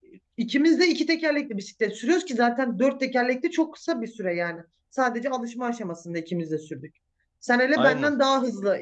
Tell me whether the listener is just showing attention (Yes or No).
Yes